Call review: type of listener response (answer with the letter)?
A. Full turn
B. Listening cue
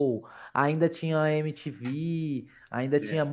B